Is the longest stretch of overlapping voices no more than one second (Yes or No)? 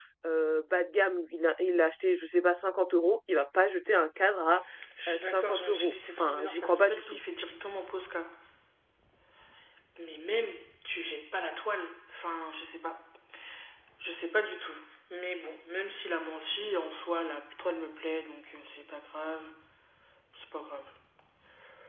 No